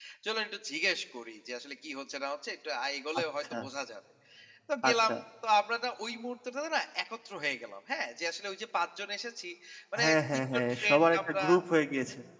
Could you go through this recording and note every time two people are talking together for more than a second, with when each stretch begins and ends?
10.0-11.4

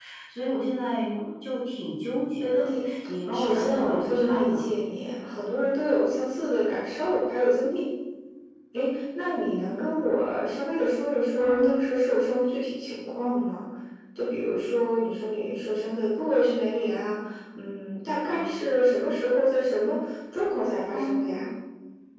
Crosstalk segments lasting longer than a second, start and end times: 3.3-4.7

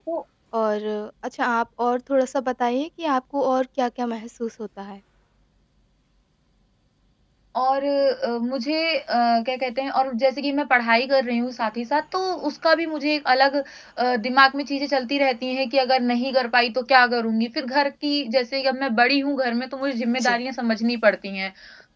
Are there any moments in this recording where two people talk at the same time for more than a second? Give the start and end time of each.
none

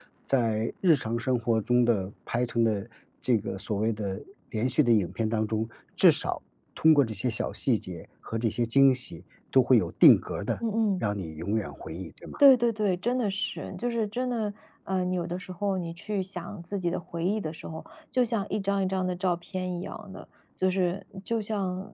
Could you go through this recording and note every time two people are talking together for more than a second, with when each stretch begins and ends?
none

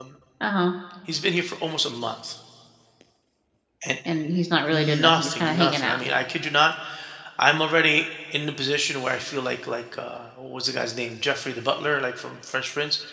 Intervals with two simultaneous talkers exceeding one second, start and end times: 4.7-6.0

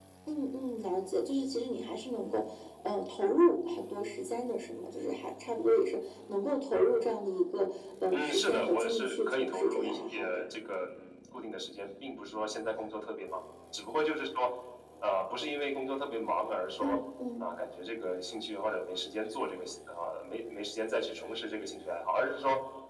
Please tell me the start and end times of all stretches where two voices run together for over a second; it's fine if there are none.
8.1-10.4

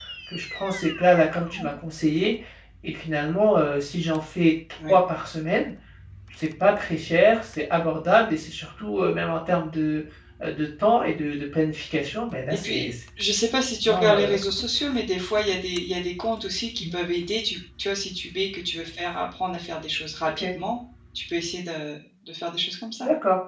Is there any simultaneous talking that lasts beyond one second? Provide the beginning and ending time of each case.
none

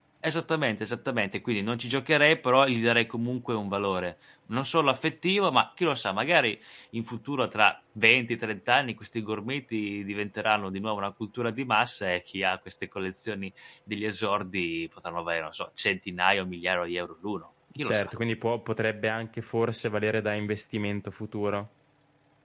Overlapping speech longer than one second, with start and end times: none

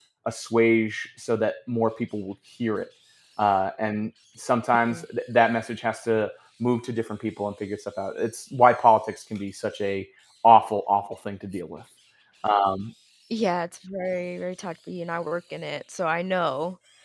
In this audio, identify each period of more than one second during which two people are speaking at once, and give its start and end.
none

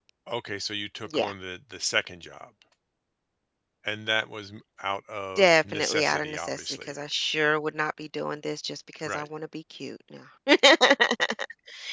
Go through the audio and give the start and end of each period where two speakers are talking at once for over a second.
5.4-6.9

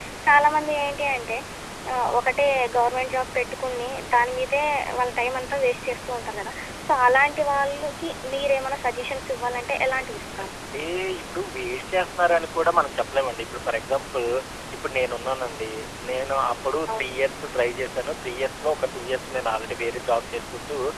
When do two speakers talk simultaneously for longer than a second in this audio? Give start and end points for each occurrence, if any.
none

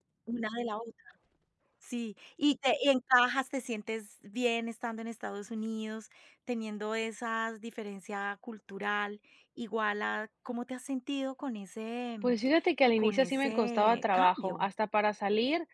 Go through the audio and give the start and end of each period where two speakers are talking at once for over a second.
13.0-14.7

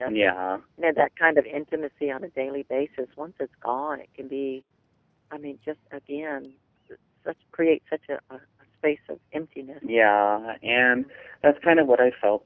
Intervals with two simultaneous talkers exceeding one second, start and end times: none

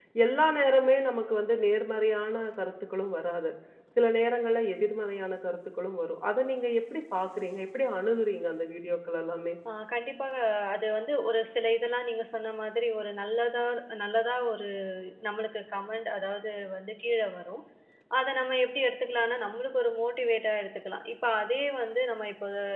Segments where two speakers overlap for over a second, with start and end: none

